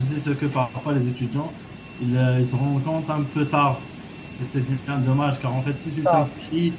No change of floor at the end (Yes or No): Yes